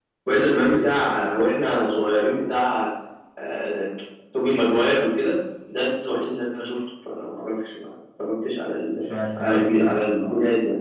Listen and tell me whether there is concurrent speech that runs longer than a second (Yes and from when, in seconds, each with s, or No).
Yes, from 9.1 s